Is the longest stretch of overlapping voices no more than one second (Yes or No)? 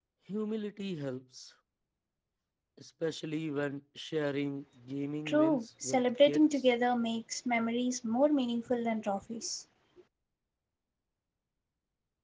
No